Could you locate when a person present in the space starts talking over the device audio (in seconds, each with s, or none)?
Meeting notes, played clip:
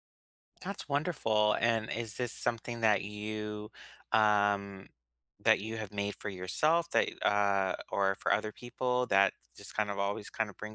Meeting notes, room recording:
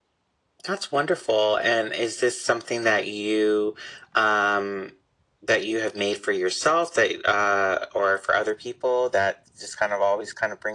none